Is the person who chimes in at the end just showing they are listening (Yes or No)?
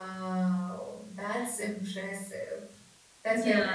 No